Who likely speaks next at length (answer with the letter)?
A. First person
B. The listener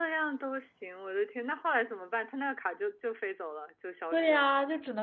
B